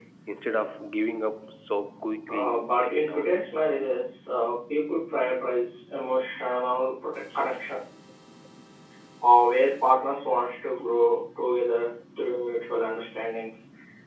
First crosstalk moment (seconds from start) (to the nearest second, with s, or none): 2 s